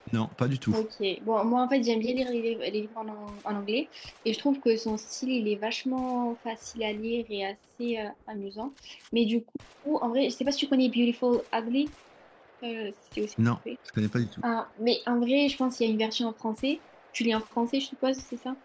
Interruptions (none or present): none